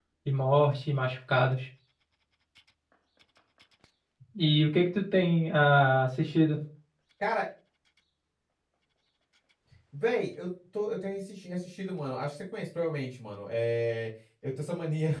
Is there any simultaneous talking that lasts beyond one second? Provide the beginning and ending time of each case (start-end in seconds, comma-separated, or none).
none